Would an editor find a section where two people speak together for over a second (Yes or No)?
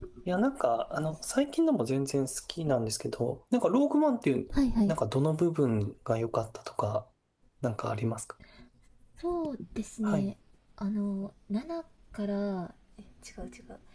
No